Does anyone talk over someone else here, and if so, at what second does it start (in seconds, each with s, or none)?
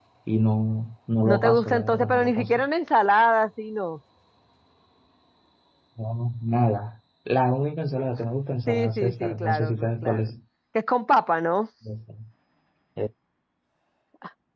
1.2 s